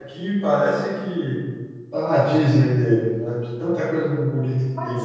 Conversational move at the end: taking over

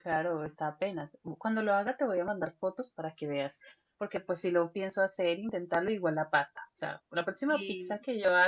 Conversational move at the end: listening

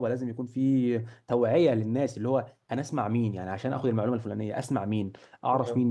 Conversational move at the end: listening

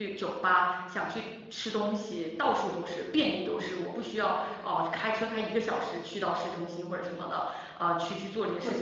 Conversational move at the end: taking over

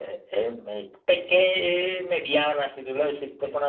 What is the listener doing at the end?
listening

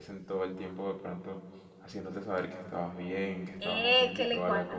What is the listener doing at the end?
taking over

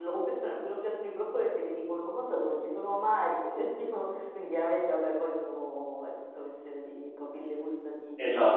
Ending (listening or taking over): taking over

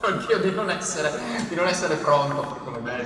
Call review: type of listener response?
taking over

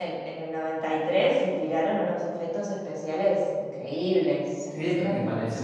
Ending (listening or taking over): taking over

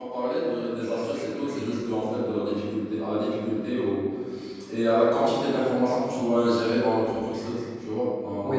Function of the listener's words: taking over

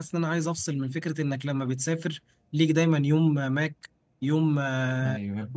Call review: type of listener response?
listening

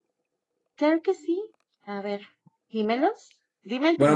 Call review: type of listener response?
taking over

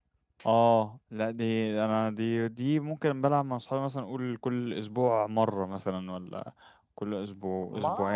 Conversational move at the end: taking over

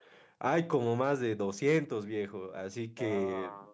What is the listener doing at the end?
listening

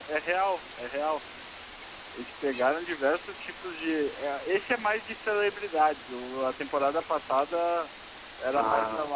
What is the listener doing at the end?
listening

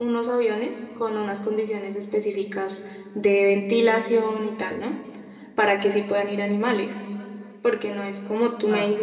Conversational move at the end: listening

